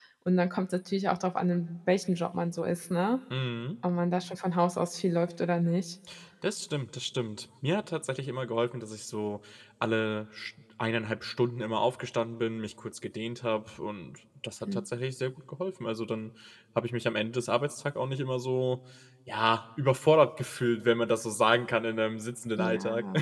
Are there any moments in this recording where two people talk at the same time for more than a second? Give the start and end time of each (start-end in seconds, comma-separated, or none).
none